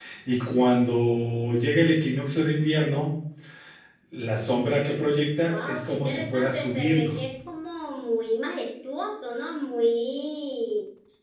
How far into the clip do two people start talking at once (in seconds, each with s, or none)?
5.5 s